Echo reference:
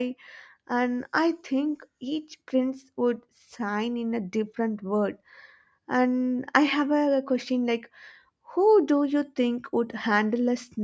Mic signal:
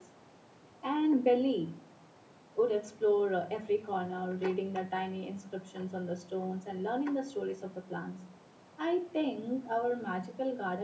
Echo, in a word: none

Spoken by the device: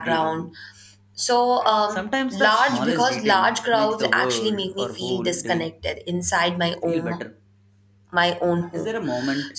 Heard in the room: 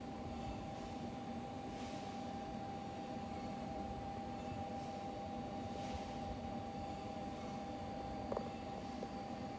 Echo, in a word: none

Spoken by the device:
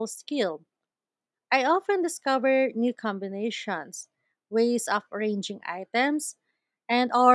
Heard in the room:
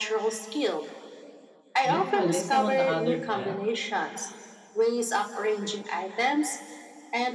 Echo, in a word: present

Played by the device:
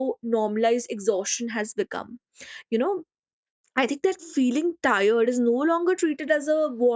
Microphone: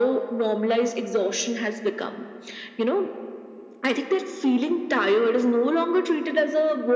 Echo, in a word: present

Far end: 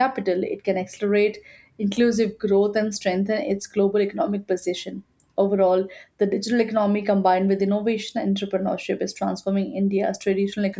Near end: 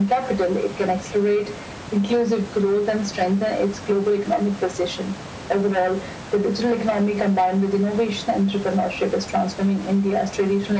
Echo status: present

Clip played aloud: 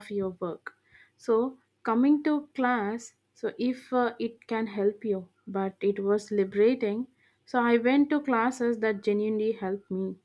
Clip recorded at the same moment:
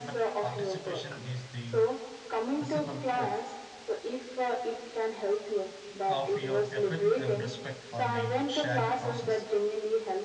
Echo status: present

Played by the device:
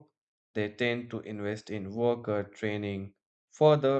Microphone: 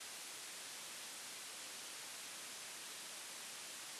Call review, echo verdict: none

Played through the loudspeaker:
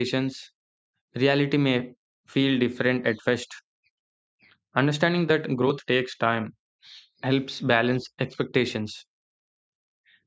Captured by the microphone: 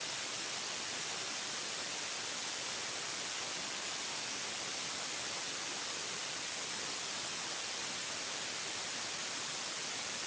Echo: none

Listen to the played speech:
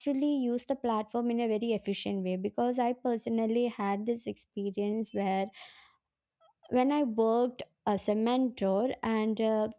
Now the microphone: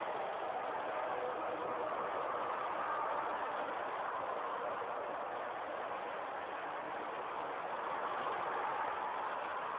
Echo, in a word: none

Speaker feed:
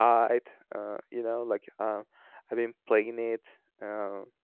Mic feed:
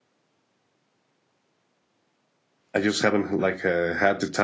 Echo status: none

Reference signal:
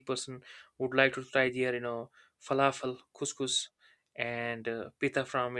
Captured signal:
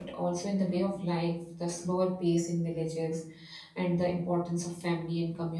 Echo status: none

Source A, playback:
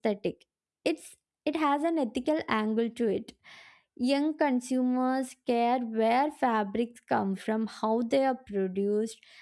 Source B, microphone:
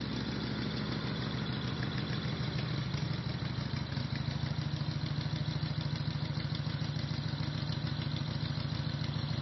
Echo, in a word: none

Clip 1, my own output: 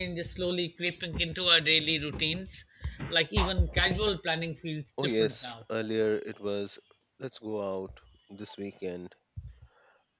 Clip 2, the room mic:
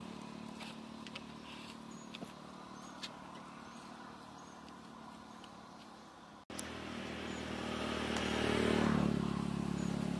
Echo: none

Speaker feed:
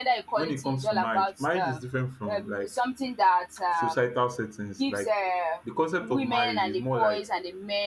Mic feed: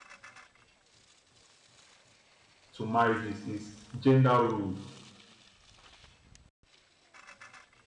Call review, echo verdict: none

